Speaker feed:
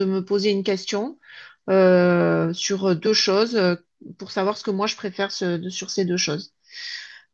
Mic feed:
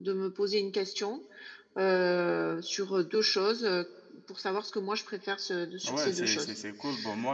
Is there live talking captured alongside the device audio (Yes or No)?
Yes